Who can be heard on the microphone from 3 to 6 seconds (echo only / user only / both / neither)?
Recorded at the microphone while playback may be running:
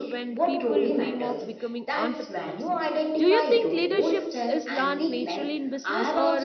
both